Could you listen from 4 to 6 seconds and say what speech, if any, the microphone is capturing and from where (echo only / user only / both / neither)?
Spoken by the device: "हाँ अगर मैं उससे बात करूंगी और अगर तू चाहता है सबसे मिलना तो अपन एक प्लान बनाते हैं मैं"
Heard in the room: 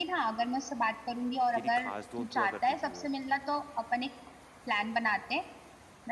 echo only